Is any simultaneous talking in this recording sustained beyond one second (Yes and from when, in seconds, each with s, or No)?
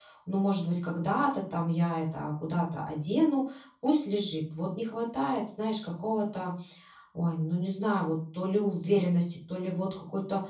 No